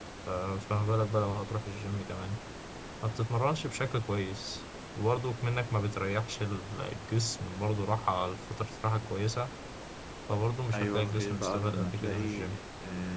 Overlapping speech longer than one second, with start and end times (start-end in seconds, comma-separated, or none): 10.7-12.6